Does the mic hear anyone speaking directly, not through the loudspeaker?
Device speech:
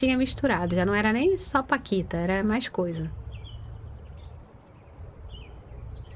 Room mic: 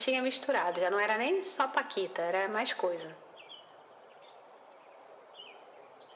No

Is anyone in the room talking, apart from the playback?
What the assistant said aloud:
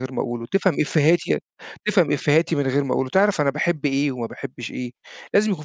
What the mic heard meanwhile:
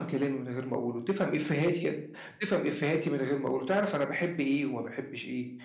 No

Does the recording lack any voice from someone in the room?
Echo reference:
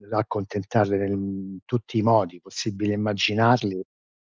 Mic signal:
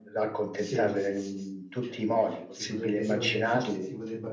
No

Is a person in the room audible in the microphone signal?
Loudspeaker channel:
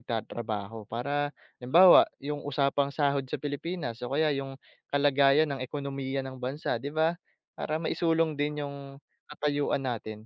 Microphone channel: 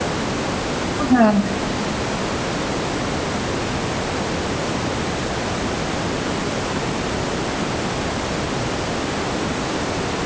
Yes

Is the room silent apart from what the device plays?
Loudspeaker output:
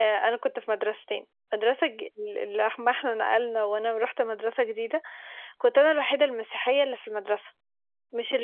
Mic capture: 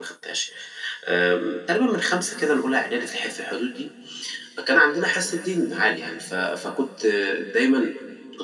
No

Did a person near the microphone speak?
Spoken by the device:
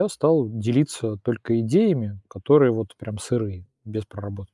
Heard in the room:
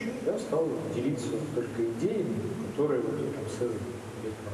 No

